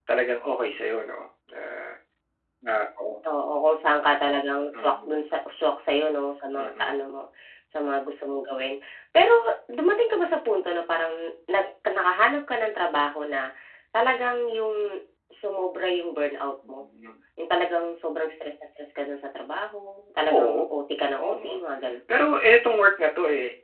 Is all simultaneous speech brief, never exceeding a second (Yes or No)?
Yes